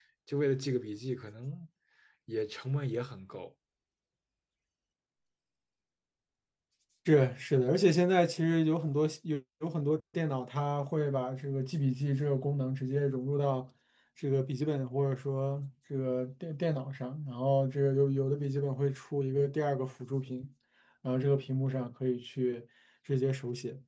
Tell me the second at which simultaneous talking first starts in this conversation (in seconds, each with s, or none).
none